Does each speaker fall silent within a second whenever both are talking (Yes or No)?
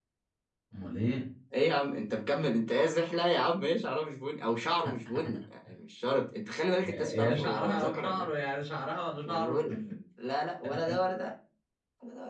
No